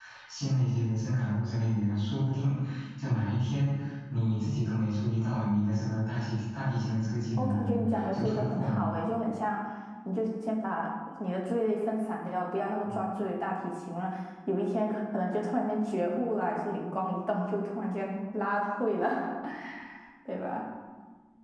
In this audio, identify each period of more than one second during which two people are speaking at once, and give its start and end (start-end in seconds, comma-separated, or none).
7.4-8.8